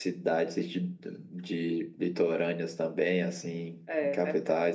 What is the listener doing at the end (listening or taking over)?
listening